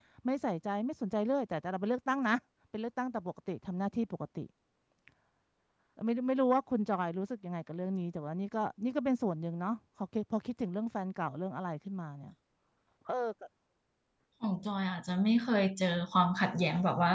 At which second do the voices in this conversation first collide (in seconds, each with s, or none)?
none